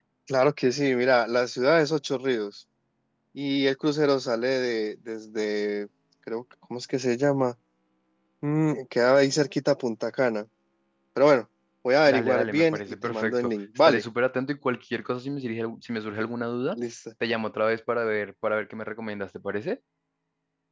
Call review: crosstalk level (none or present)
present